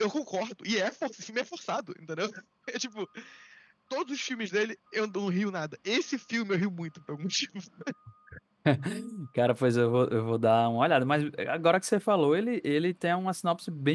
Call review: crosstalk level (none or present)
none